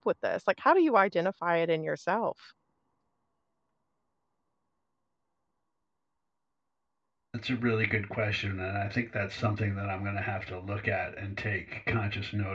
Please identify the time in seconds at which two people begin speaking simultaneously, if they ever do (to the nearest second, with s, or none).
none